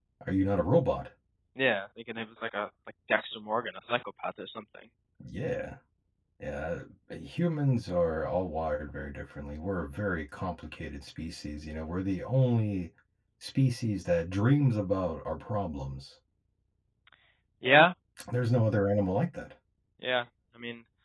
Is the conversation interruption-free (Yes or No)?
Yes